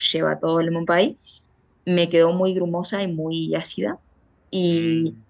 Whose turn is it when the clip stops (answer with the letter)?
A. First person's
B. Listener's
A